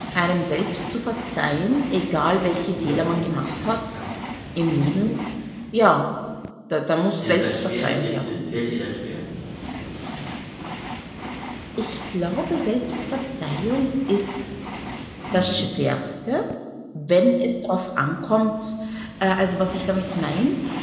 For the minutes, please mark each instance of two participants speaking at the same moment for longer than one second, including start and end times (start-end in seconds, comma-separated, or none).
7.2-8.6